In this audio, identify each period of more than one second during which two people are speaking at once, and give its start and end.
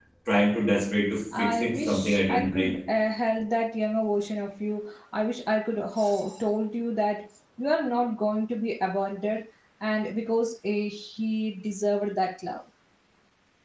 1.4-2.8

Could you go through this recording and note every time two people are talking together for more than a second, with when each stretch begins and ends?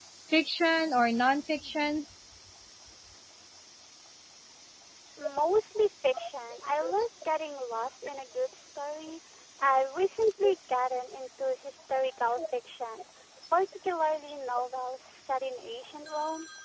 none

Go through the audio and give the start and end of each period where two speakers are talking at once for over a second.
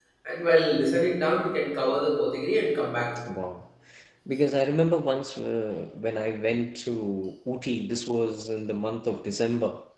none

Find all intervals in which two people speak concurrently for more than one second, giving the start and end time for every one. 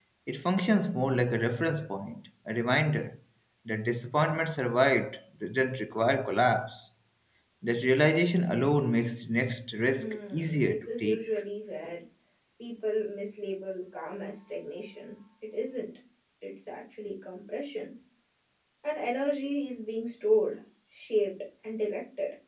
10.0-11.2

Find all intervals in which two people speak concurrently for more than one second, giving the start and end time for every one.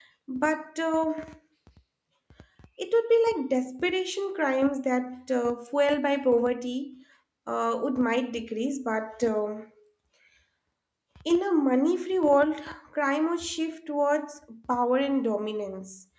none

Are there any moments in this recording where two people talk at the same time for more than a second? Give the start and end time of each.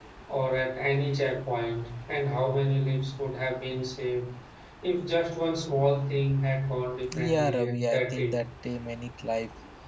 7.2-8.4

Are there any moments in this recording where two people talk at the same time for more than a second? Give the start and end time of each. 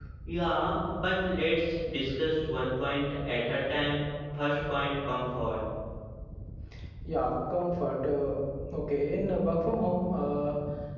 none

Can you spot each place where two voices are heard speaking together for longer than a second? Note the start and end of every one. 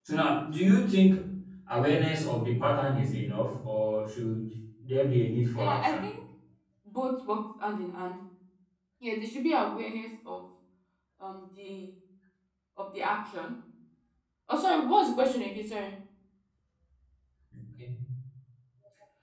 none

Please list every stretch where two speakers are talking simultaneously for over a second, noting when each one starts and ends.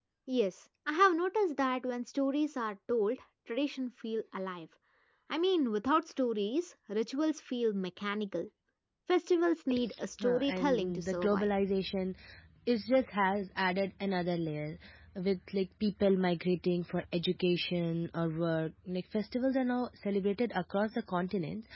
10.2-11.5

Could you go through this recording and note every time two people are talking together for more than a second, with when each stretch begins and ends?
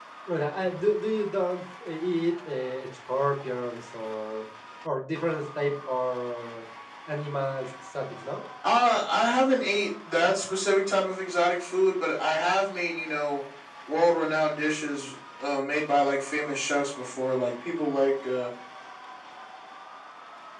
none

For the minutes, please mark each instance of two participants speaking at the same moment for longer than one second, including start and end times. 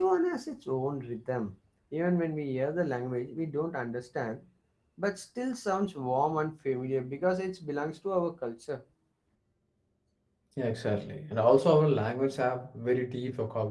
none

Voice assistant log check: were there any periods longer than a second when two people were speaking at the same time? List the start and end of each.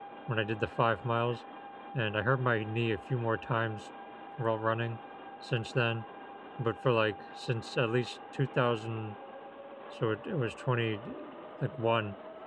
none

